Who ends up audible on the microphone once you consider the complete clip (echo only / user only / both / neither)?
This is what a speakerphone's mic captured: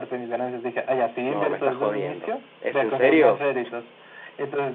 both